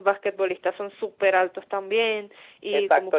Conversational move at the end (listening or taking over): taking over